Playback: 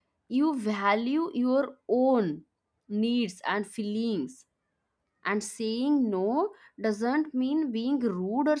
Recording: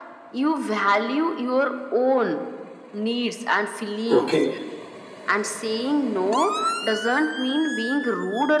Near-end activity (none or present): present